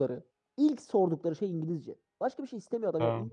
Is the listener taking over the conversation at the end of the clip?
No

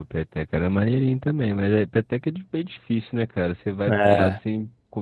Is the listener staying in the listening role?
Yes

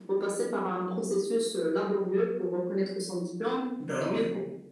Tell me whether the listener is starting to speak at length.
No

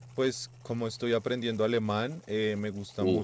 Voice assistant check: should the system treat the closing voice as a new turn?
No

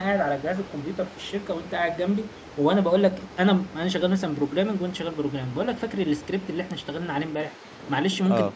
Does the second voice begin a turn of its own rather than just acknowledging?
No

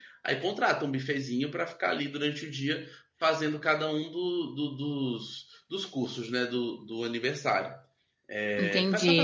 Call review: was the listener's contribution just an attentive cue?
No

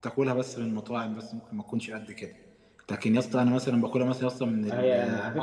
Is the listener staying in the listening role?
No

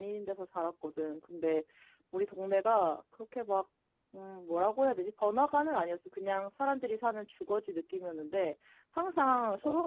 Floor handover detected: No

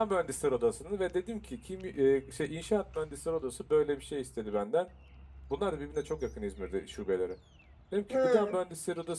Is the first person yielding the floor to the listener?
No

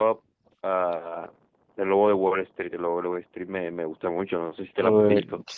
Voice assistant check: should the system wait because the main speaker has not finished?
No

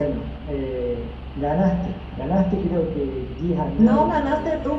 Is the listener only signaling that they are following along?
No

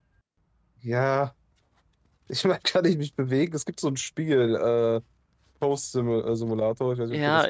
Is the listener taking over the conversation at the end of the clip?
Yes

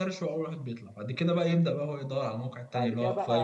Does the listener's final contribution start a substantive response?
Yes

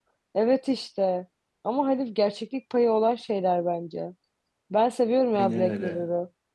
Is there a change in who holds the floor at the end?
No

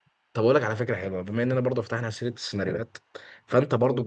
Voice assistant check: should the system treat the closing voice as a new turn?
No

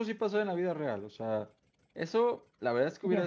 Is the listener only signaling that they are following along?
Yes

